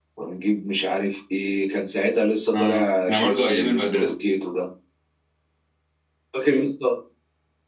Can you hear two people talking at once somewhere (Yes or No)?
Yes